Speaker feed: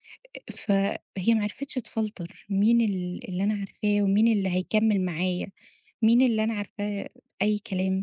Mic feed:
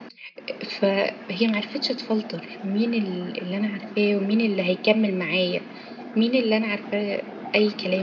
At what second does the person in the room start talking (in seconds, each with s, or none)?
none